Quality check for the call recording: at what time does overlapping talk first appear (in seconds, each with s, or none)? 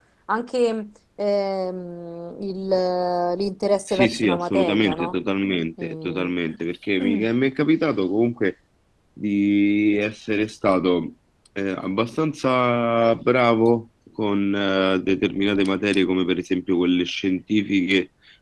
3.9 s